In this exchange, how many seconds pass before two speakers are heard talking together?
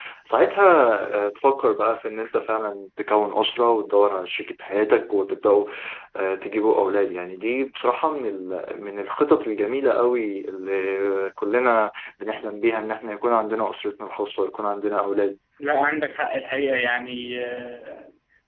none

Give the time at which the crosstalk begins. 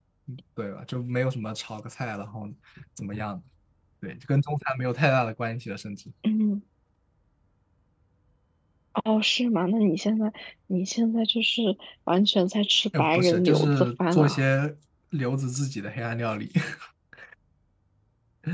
12.9 s

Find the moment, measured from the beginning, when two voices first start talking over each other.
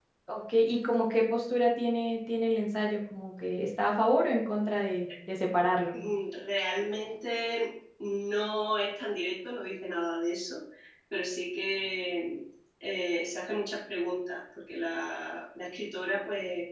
none

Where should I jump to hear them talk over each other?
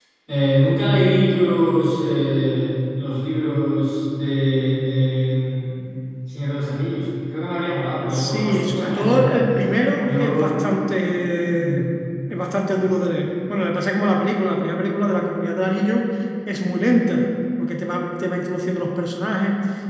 8.1 s

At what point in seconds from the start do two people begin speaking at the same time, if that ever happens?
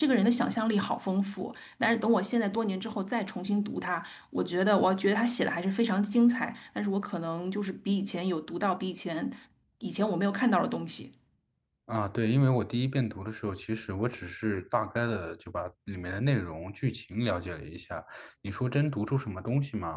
none

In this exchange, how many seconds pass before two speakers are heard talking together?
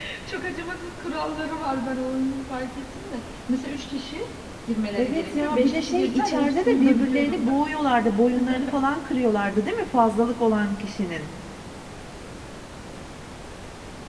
5.0 s

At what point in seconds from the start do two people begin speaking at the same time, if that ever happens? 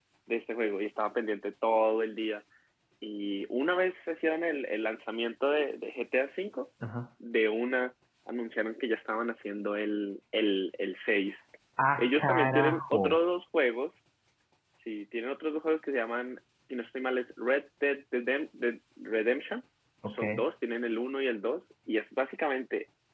12.0 s

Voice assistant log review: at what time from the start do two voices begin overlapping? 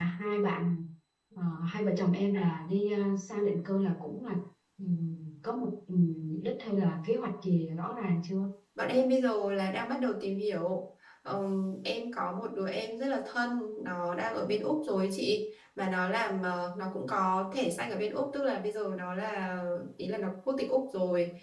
none

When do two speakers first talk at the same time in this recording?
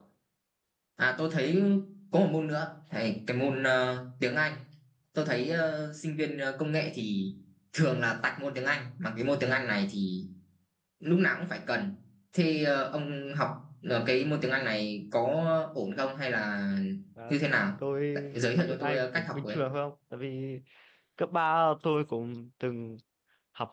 18.3 s

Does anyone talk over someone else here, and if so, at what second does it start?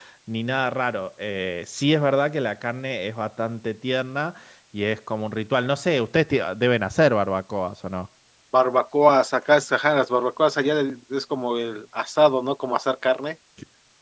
none

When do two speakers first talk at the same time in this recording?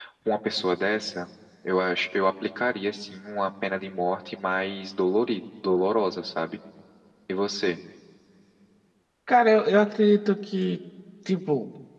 none

